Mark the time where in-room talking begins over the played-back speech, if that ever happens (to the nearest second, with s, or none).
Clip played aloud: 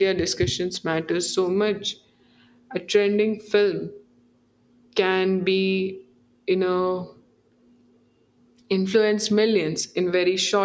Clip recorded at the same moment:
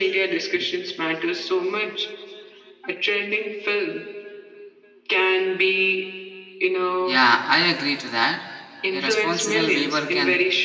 7 s